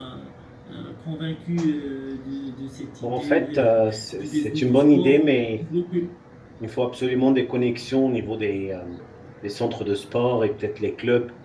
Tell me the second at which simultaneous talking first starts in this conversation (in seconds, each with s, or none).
3.0 s